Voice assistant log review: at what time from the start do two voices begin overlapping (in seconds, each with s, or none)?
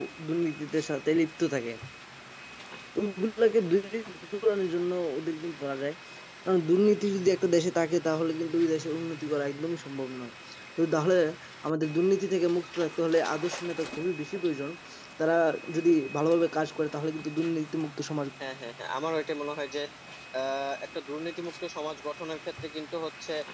none